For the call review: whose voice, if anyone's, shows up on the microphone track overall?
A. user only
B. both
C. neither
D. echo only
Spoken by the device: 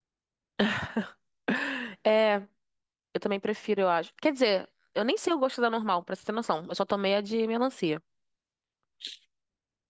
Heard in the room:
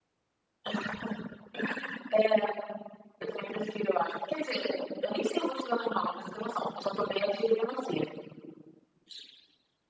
D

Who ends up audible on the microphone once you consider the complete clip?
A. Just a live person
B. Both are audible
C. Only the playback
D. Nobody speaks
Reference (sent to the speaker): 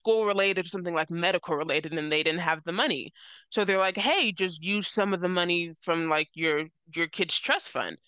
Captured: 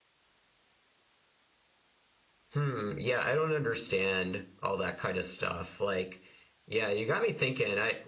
A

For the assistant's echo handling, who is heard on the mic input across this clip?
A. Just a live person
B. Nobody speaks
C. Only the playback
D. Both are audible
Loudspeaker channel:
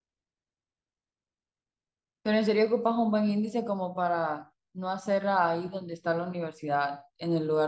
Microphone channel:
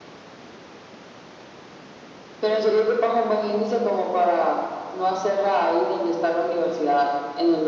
C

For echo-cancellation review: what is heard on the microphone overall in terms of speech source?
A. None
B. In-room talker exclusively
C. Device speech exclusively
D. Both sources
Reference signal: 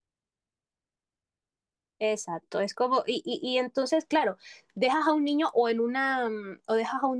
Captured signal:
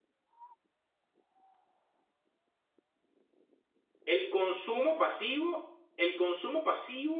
B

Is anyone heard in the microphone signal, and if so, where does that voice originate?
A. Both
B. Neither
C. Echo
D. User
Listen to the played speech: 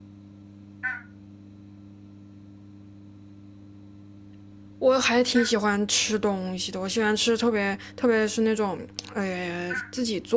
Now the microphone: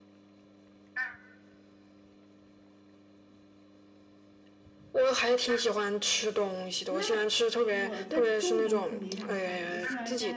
A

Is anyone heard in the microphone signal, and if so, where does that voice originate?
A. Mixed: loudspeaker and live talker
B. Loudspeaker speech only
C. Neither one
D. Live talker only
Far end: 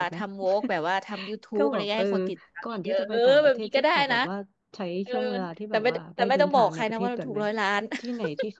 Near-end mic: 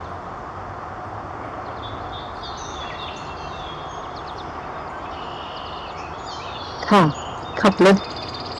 D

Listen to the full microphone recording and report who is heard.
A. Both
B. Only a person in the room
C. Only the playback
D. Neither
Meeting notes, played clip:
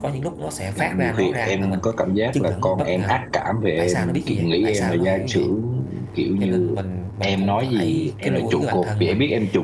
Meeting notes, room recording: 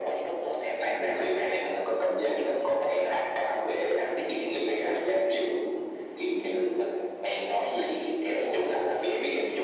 C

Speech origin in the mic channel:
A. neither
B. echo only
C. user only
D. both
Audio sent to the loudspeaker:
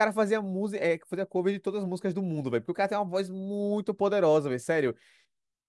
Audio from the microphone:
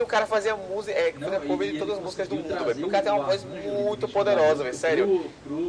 D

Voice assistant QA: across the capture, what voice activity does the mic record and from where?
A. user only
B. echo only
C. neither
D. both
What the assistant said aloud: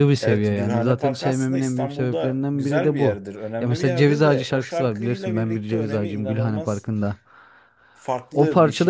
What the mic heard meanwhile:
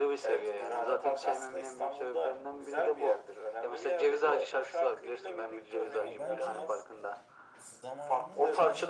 D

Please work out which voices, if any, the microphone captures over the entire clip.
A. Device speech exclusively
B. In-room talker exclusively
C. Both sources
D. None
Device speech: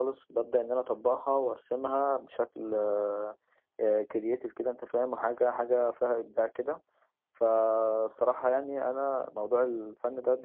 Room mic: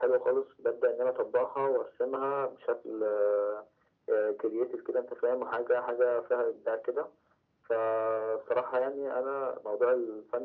A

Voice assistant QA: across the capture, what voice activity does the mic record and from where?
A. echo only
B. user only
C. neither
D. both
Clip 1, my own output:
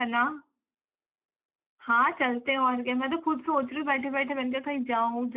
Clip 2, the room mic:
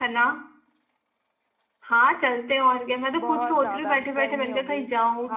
D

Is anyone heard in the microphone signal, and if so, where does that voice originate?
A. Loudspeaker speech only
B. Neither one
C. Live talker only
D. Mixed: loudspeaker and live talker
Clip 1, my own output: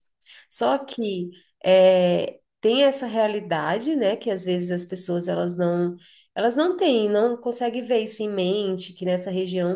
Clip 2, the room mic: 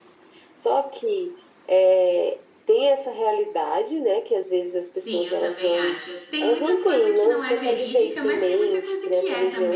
D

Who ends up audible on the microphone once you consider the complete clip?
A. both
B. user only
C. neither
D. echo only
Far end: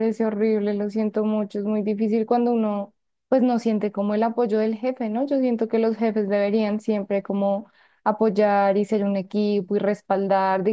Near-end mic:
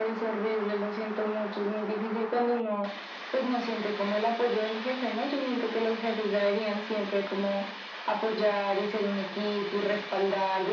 D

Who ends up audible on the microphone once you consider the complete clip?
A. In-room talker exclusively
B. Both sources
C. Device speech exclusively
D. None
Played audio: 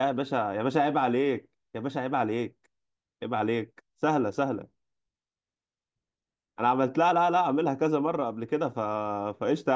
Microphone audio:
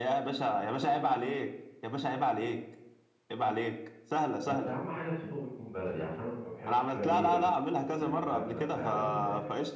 B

